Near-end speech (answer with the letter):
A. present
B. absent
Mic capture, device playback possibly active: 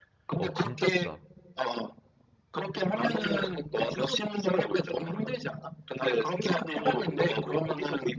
A